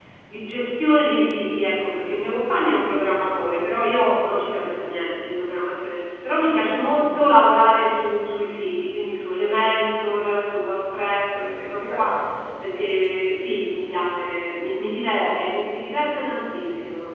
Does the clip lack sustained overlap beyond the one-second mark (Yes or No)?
Yes